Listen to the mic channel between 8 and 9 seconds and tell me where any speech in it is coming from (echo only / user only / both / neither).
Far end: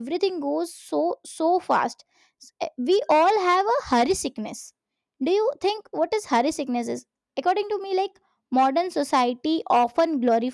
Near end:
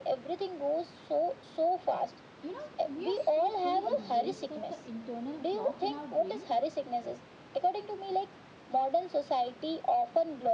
echo only